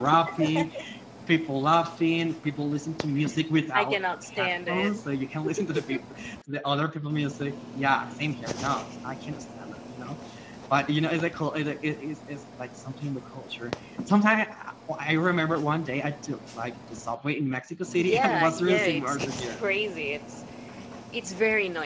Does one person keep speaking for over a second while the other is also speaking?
Yes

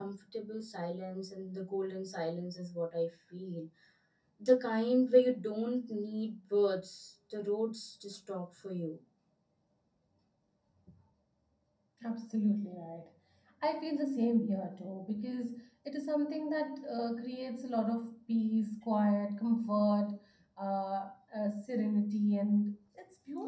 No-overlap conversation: Yes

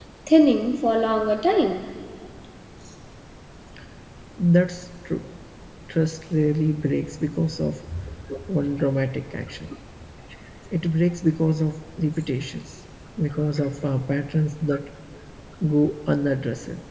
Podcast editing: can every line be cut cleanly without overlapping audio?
Yes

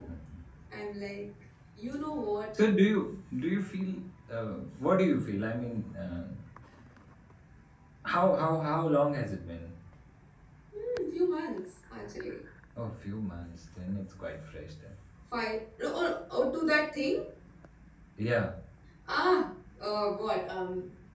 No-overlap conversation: Yes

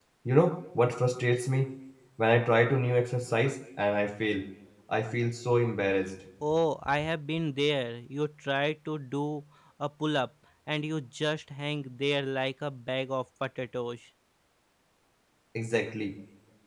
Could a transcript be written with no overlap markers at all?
Yes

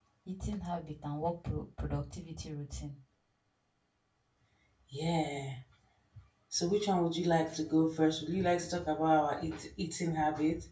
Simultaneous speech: No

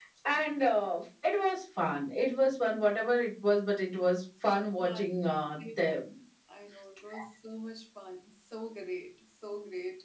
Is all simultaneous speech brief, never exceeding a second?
Yes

